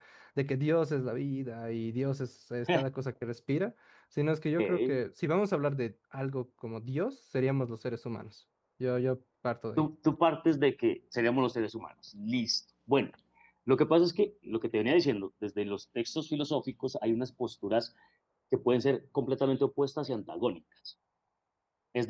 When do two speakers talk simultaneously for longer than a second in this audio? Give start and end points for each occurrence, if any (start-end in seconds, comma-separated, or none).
none